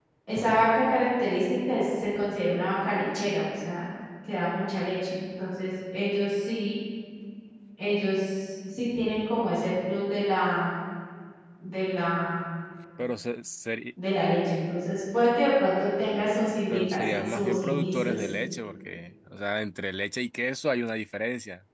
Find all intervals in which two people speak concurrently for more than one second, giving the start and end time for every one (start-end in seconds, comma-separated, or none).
16.7-18.2